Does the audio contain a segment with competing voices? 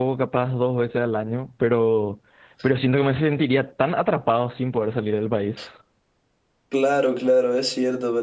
No

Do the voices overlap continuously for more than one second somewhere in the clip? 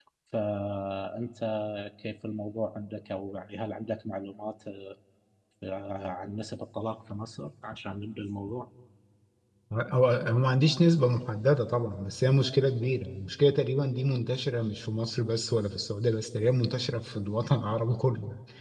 No

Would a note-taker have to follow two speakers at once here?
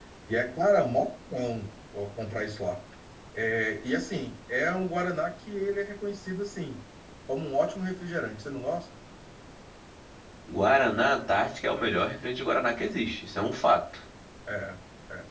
No

